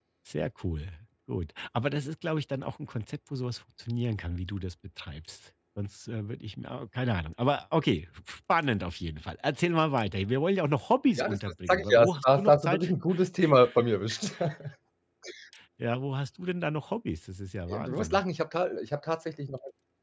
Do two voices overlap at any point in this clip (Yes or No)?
Yes